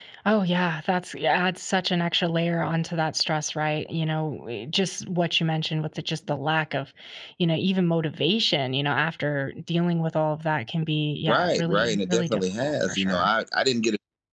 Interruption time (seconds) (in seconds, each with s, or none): 11.3 s